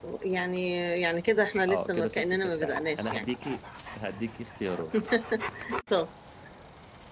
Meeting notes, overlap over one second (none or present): present